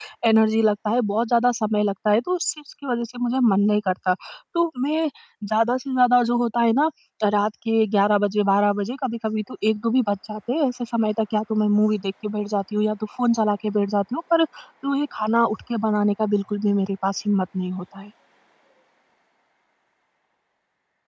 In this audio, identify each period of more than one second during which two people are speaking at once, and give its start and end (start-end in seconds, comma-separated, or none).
none